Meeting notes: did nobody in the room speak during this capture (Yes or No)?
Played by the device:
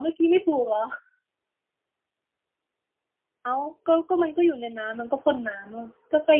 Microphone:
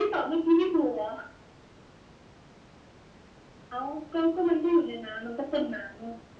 Yes